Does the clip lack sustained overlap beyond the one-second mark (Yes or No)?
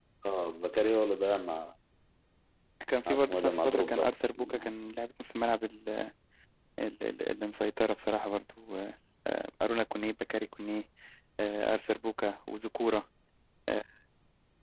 No